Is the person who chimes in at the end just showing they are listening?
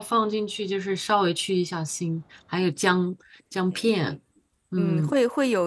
No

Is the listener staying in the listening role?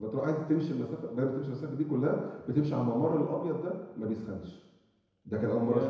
Yes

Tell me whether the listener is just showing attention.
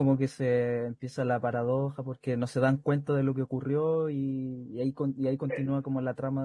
Yes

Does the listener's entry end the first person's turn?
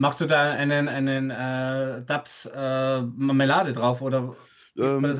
Yes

